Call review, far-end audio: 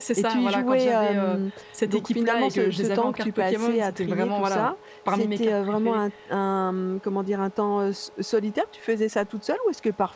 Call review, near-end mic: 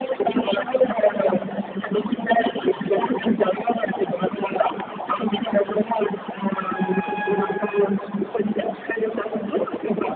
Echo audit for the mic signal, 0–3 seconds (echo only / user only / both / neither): echo only